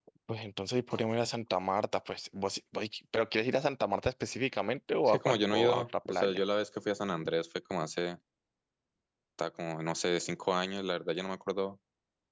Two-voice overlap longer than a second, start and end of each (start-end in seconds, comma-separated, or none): 5.0-6.4